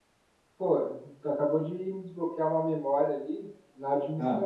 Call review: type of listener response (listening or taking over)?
listening